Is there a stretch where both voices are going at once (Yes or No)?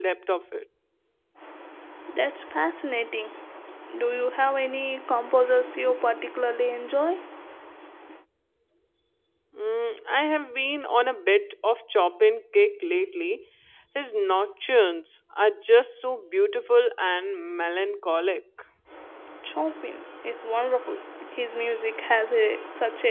No